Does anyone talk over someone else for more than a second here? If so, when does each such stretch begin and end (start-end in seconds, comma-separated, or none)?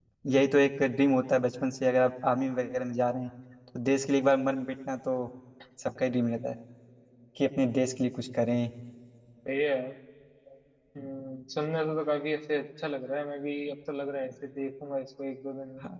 none